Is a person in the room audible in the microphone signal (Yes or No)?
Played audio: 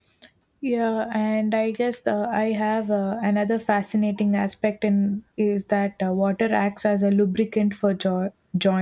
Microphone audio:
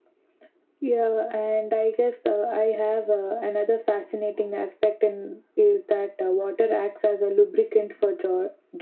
No